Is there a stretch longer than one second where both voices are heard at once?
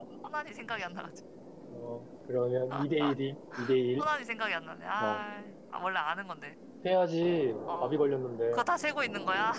No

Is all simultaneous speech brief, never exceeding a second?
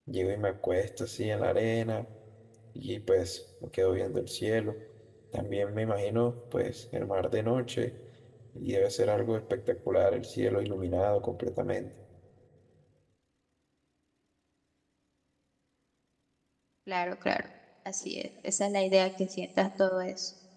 Yes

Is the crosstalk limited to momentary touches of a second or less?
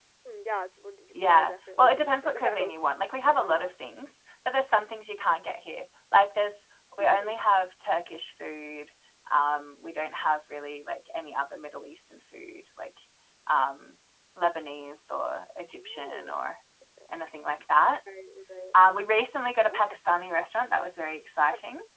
No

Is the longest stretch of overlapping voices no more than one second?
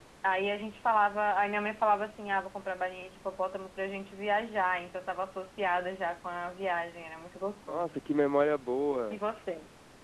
Yes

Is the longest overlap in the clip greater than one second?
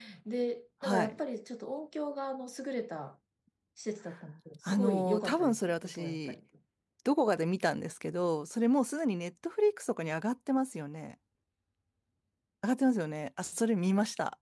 Yes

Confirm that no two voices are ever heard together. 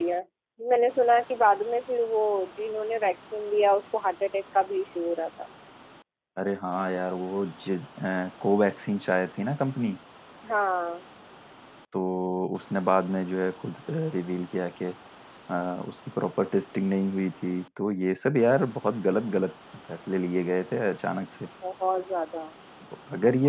Yes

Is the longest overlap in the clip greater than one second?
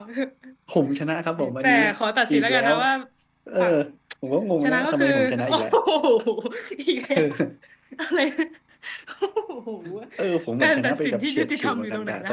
Yes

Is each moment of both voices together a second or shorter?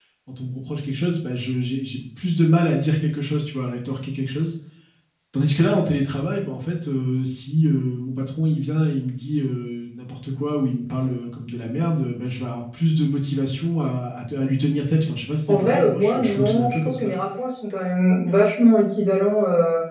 No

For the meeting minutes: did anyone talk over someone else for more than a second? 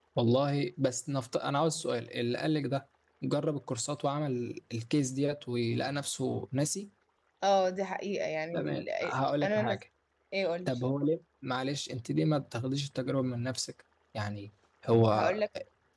No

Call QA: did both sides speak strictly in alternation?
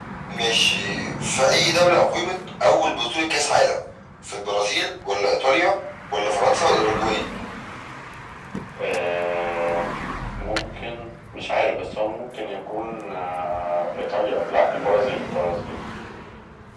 Yes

